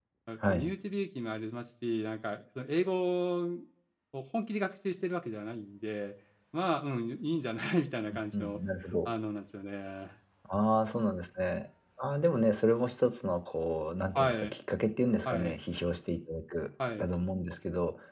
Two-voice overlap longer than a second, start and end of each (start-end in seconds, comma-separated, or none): none